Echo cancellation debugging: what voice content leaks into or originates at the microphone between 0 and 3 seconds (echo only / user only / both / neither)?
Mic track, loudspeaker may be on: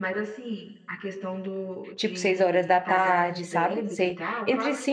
both